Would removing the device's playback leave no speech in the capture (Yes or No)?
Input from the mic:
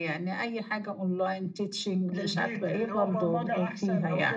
Yes